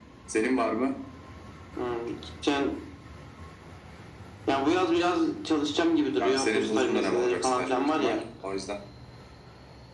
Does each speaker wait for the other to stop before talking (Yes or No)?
No